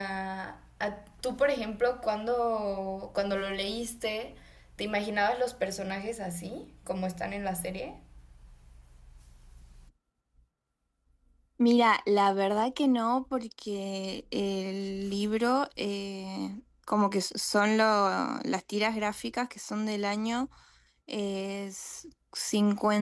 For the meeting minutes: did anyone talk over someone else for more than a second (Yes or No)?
No